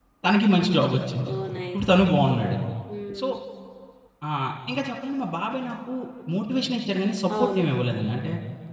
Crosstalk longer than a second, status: none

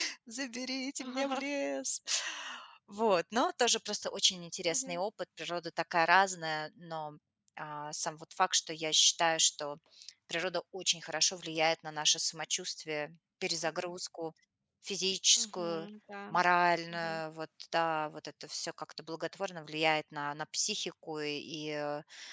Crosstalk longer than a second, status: none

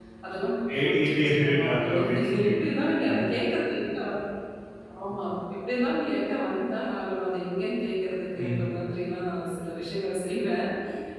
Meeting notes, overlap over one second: present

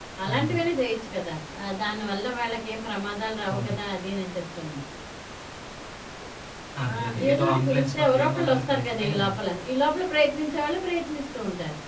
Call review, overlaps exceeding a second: present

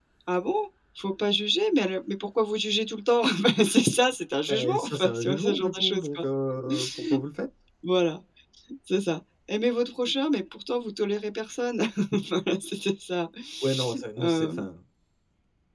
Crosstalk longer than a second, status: present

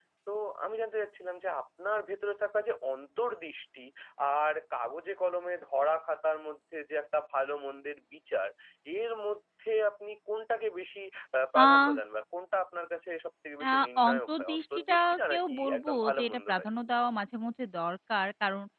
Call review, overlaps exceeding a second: present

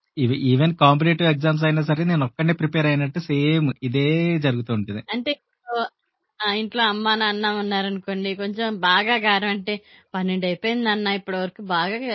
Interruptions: none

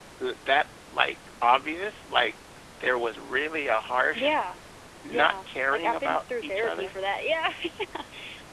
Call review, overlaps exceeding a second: present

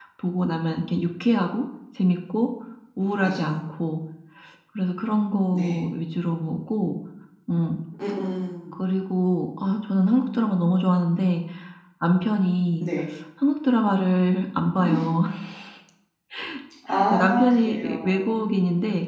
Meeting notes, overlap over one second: present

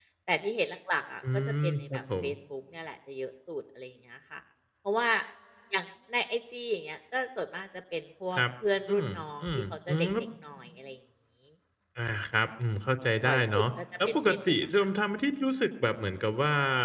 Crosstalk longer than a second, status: present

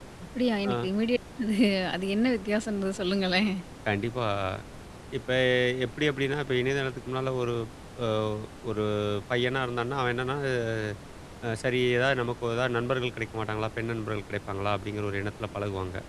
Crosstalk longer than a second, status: none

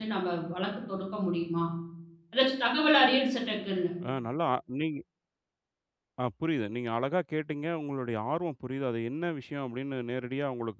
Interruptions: none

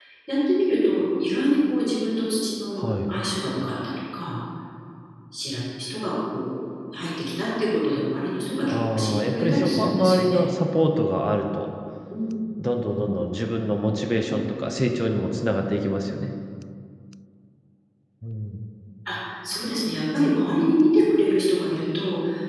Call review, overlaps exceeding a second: present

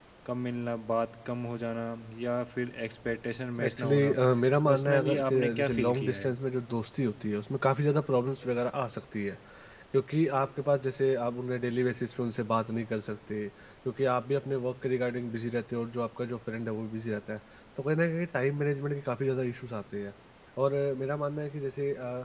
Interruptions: present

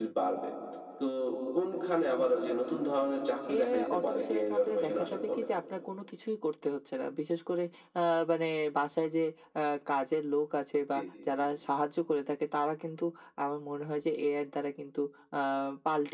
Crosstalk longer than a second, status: present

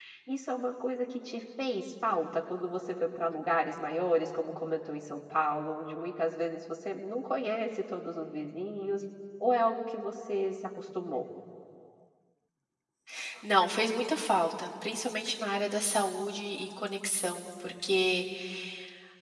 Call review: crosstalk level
none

